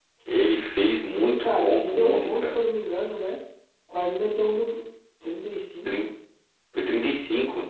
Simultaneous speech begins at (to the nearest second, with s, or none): 1 s